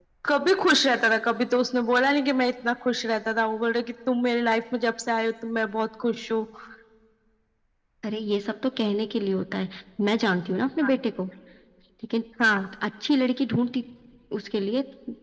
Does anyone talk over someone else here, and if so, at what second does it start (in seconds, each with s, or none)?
none